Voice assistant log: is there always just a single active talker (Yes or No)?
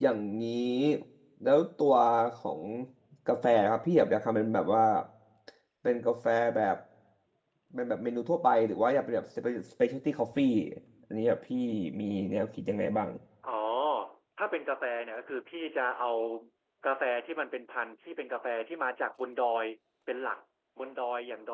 Yes